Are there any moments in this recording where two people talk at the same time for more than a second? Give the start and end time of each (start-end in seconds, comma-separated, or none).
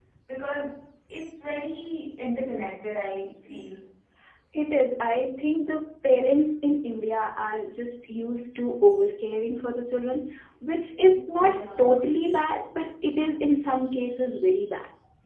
none